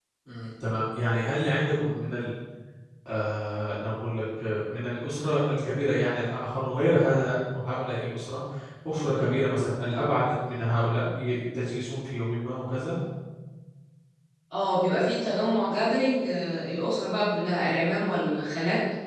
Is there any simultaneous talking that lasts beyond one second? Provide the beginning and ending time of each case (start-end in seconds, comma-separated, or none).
none